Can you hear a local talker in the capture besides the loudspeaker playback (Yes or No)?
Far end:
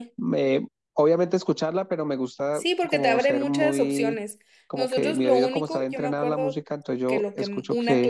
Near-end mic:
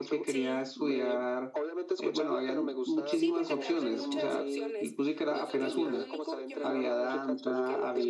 Yes